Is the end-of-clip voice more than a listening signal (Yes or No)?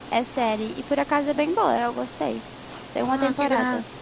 Yes